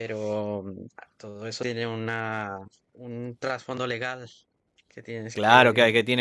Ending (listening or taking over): taking over